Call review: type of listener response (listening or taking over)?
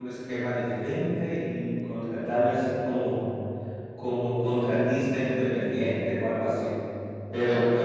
listening